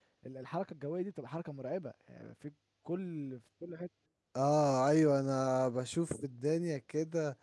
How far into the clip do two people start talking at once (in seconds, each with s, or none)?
none